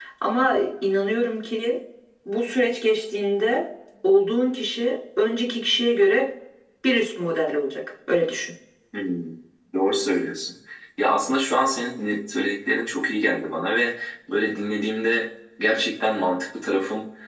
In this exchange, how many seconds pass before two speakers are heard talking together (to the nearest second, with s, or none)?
none